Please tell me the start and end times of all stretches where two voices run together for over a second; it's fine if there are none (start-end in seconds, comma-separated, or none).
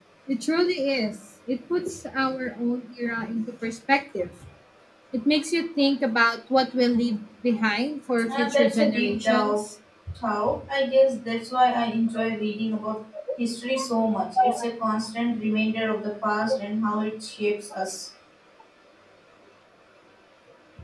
8.3-9.6